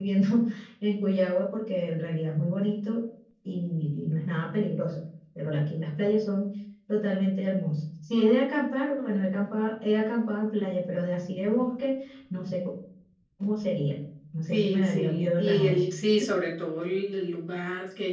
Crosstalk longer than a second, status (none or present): present